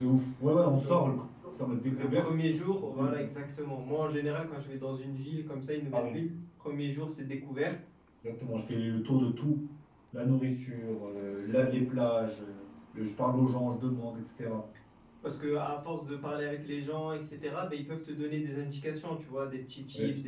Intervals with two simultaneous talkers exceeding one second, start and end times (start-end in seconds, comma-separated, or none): 1.9-3.3